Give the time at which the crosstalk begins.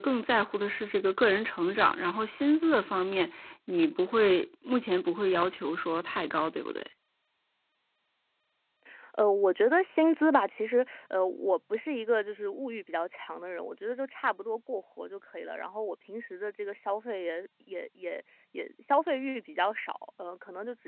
none

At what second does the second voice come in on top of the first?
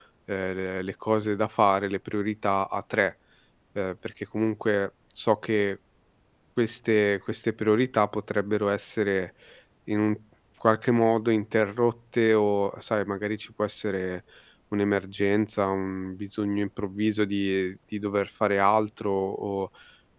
none

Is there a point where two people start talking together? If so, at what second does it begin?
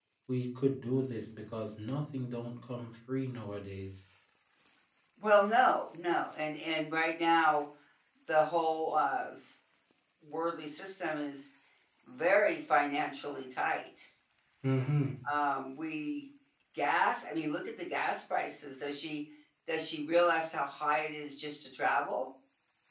none

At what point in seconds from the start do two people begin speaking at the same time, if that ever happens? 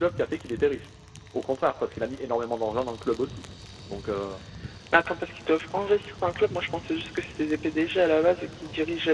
none

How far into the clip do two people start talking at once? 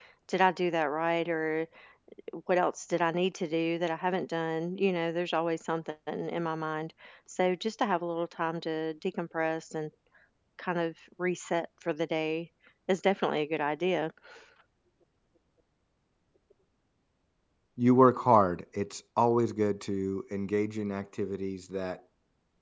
none

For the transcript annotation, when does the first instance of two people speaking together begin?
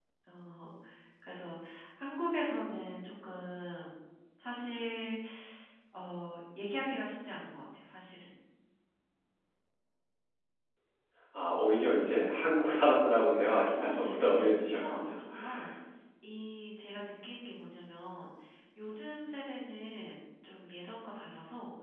13.8 s

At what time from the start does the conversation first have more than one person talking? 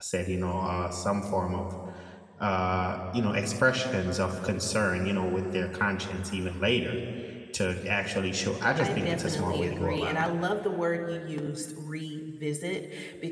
8.7 s

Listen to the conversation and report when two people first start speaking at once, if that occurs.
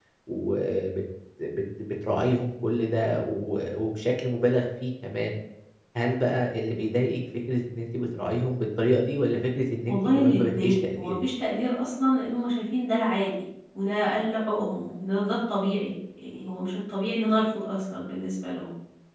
9.9 s

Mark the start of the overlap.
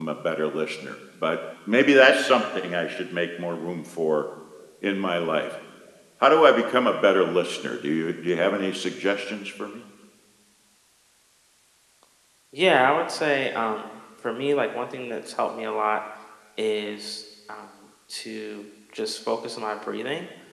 none

